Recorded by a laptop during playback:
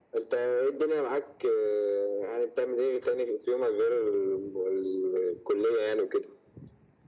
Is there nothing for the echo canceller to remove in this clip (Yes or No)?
No